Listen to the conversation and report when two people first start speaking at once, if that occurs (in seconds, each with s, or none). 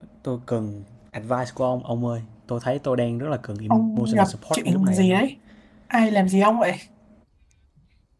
3.7 s